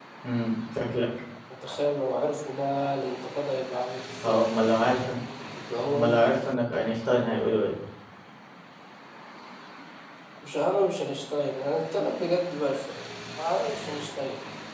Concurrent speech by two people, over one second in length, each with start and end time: none

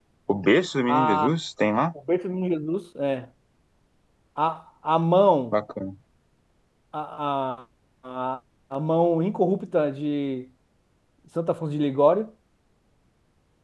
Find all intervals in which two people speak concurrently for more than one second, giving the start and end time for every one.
none

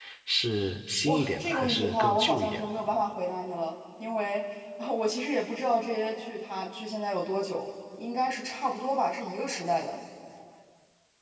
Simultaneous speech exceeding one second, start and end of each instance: 1.0-2.6

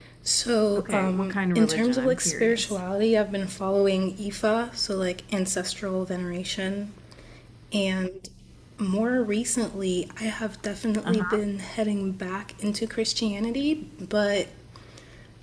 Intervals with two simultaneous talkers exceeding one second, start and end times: 0.8-2.8

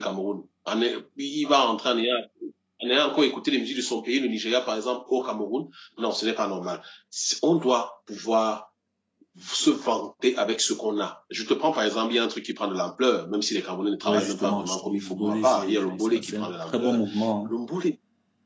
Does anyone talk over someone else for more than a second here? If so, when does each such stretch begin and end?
14.0-17.0

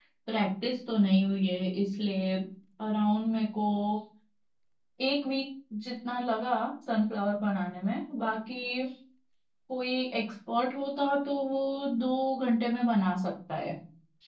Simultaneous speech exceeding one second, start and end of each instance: none

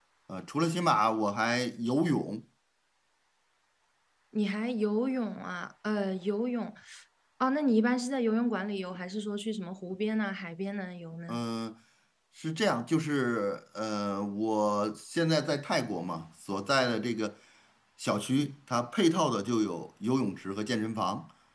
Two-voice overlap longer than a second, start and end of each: none

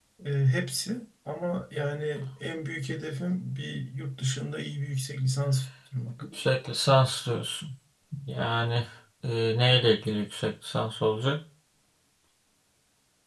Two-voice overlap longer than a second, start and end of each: none

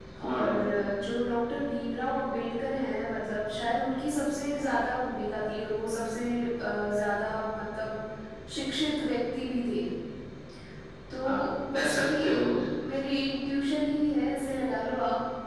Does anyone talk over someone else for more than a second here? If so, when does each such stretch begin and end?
11.2-12.4

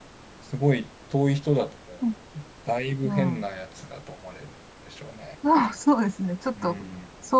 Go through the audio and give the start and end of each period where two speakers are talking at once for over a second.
none

